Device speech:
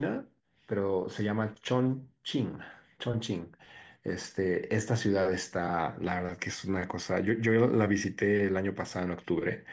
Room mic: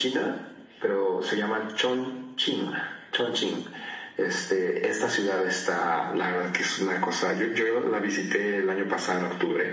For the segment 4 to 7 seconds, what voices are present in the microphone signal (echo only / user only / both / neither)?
echo only